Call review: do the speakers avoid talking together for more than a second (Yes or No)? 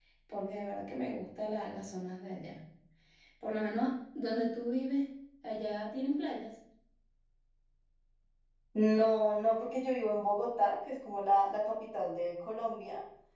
Yes